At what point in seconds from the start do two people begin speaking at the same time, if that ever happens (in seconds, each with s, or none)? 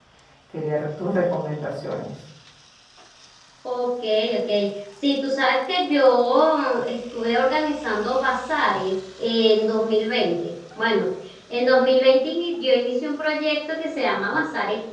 none